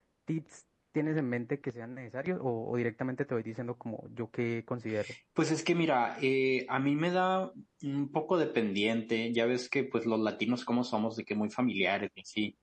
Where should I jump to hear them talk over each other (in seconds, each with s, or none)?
none